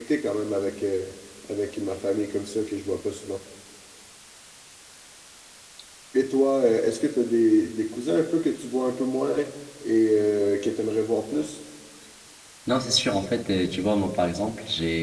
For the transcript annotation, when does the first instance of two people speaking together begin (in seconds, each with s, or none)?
none